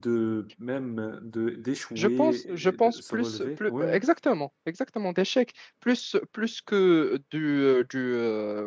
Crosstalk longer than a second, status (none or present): present